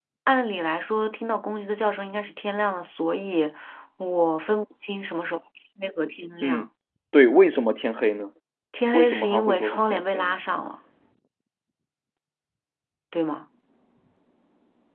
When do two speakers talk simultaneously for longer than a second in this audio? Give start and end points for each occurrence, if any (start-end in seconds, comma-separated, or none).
8.9-10.4